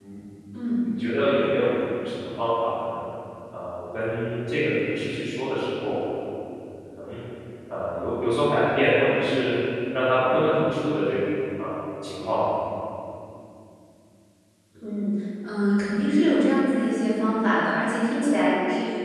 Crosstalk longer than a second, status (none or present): none